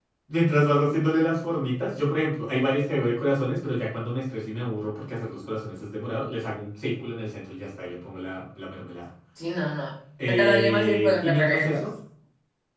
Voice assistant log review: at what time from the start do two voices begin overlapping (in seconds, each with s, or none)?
10.2 s